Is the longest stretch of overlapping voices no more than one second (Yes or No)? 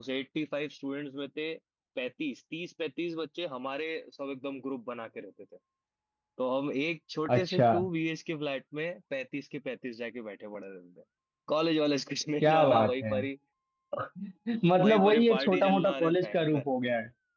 No